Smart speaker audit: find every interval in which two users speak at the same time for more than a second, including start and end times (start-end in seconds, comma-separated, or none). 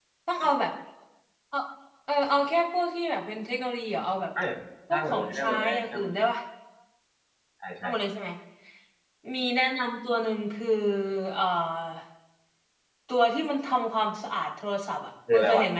4.9-6.2